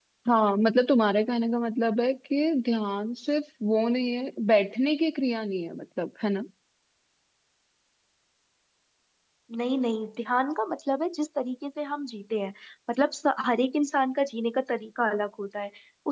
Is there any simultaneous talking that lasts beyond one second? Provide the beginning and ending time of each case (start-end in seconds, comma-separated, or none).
none